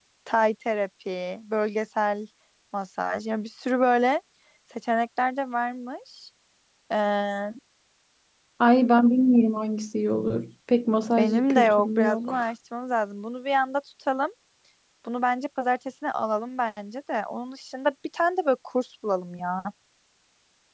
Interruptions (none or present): present